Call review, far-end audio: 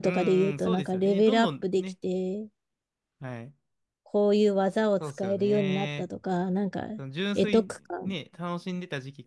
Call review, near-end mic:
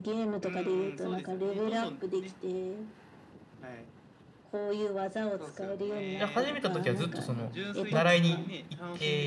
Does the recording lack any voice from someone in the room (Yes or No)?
No